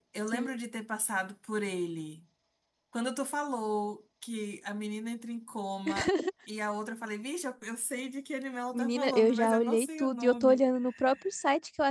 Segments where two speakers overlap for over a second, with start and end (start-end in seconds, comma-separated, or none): 8.7-10.6